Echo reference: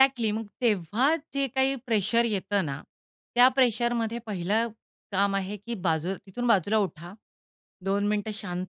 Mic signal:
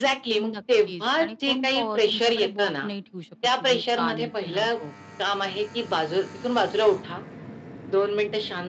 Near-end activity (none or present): present